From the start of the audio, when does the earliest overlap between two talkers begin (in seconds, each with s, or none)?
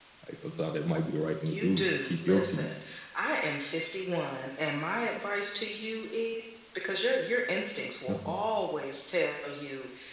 1.4 s